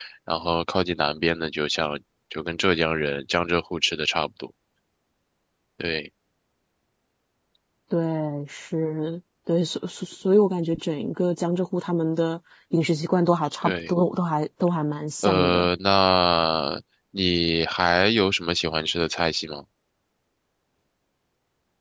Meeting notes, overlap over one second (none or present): none